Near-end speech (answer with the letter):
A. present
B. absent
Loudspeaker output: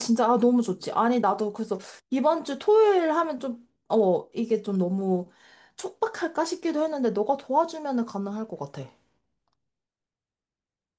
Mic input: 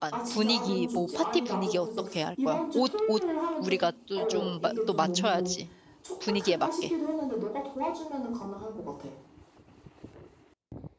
A